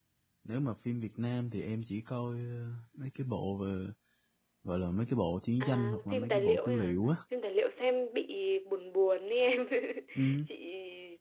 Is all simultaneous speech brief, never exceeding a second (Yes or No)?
No